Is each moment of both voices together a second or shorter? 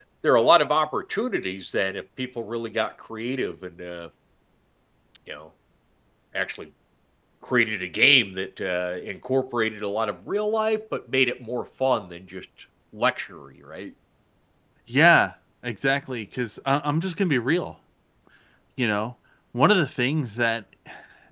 Yes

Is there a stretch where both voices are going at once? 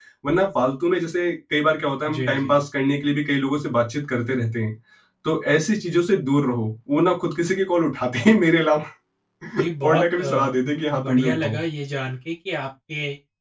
Yes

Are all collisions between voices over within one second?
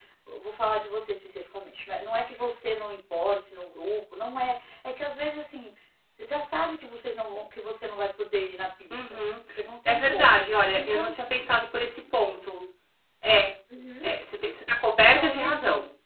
Yes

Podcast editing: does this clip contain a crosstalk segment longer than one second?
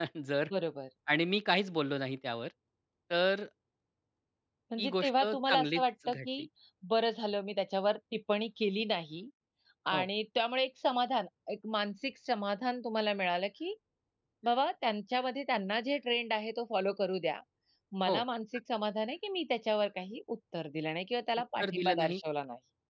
Yes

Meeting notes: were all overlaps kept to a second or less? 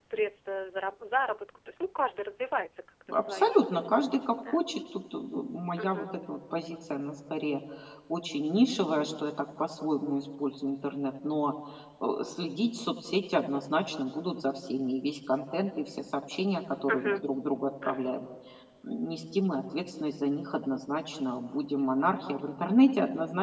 Yes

